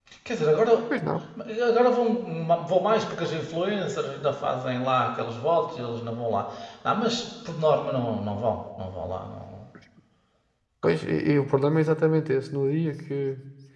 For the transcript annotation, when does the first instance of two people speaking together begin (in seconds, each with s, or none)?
none